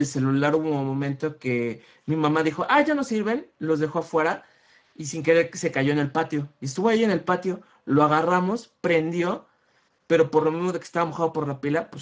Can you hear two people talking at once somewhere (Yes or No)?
No